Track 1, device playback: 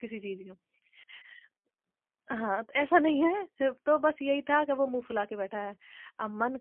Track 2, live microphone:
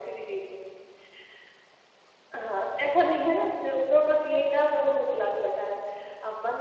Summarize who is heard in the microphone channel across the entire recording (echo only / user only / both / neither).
echo only